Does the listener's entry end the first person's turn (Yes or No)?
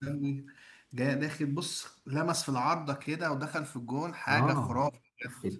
Yes